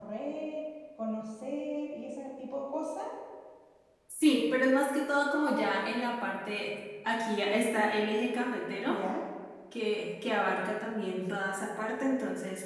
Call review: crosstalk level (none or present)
none